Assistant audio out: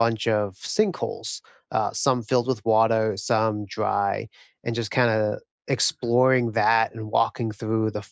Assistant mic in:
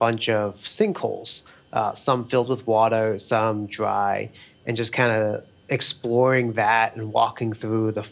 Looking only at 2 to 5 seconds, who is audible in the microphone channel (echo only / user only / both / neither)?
echo only